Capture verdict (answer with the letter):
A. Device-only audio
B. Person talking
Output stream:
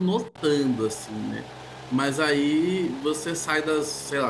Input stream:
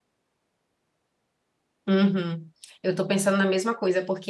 B